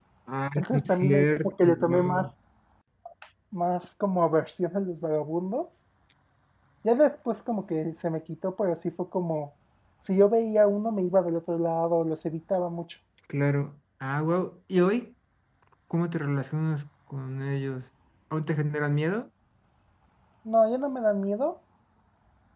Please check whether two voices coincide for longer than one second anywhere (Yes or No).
Yes